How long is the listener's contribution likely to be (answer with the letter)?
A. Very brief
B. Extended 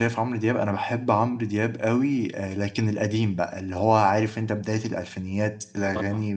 A